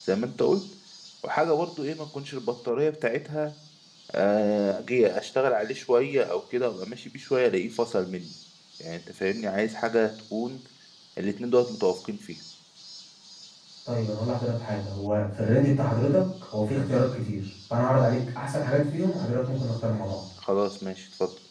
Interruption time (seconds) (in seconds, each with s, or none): none